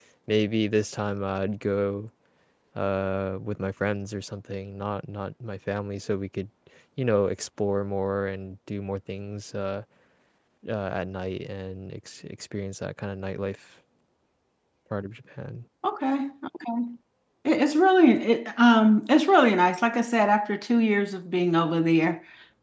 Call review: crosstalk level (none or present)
none